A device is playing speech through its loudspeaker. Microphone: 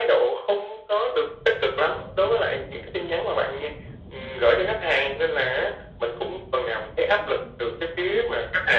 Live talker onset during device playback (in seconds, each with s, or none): none